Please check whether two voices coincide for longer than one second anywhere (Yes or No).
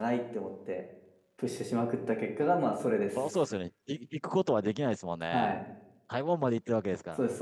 No